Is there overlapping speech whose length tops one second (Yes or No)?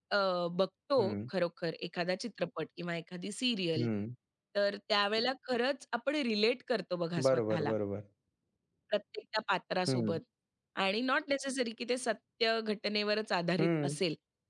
No